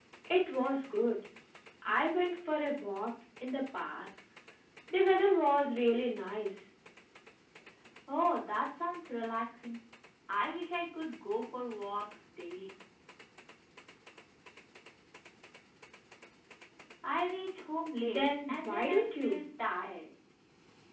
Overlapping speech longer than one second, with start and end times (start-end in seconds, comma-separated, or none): 18.0-19.4